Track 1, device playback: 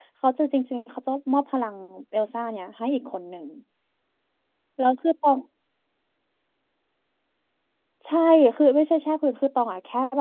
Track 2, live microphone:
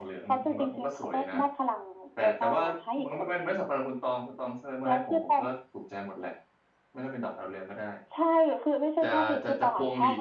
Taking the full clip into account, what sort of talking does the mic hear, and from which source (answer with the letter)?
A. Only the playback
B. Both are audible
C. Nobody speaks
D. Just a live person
B